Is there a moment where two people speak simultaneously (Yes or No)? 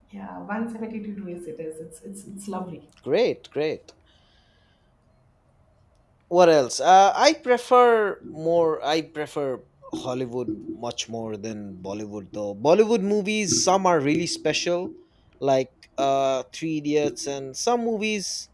No